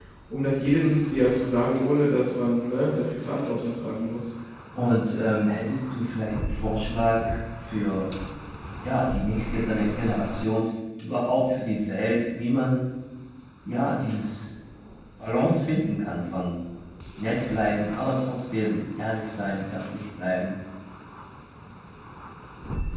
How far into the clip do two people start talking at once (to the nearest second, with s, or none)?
none